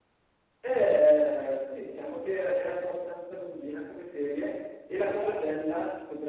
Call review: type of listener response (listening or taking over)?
listening